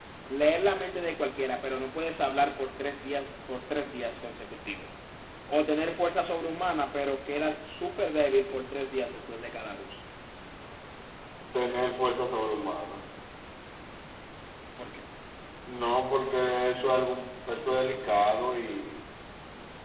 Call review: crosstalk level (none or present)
none